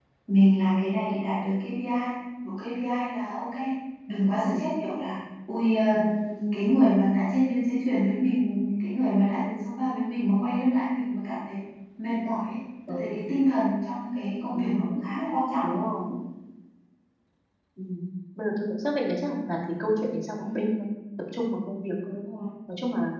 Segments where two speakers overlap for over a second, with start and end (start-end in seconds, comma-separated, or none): none